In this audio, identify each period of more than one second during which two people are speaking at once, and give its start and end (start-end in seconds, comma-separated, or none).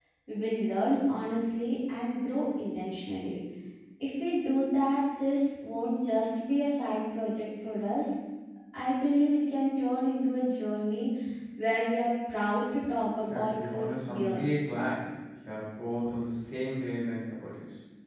13.3-14.6